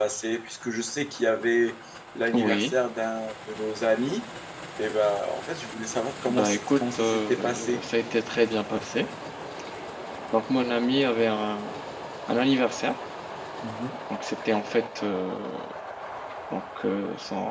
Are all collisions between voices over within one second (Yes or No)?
No